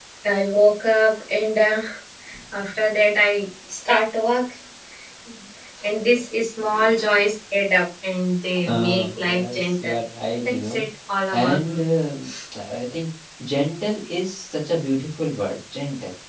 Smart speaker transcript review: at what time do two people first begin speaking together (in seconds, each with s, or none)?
8.7 s